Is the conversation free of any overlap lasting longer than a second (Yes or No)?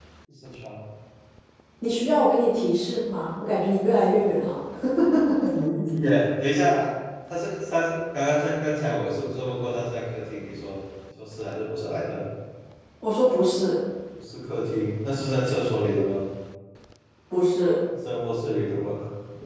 Yes